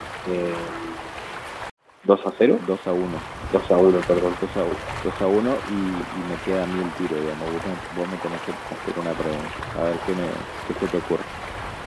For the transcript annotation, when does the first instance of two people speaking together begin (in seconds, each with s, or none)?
none